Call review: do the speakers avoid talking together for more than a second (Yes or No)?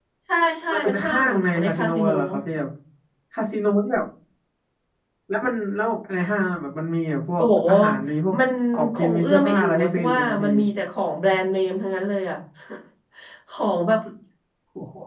No